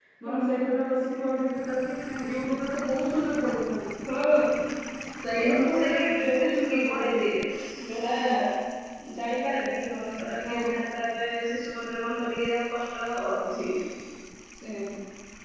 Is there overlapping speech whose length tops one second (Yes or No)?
Yes